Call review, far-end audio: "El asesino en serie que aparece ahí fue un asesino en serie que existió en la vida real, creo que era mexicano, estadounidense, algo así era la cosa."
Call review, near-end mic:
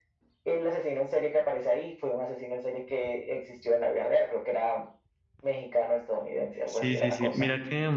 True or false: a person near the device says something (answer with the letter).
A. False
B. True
B